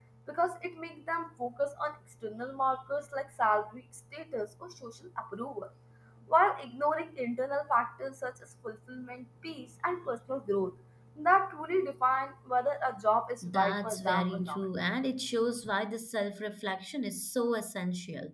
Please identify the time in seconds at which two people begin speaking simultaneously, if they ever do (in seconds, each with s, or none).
13.4 s